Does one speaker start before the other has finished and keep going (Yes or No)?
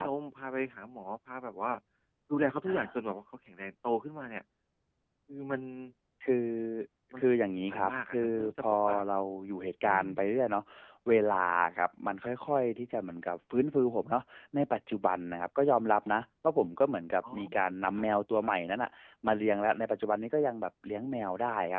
Yes